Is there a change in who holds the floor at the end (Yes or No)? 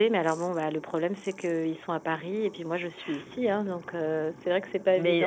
Yes